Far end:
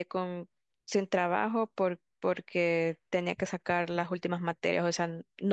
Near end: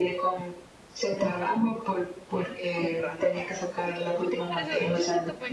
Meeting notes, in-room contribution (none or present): present